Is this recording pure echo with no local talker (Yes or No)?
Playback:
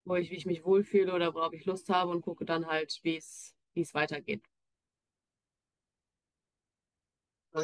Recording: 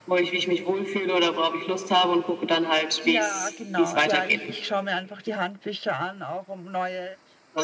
No